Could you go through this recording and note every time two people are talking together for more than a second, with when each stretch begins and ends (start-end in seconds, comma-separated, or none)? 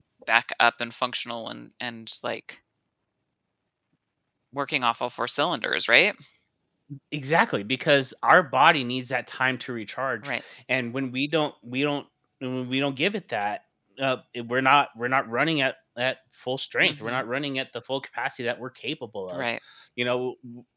none